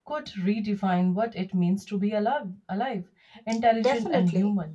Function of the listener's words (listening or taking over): taking over